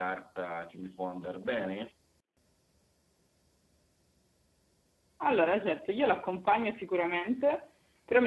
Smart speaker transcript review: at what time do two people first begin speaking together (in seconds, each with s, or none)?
none